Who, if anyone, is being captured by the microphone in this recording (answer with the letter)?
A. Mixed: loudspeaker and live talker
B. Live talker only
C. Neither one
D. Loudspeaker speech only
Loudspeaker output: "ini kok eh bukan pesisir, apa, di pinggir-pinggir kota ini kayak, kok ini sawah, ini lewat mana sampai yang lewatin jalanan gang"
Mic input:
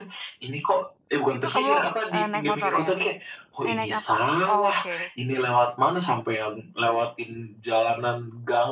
A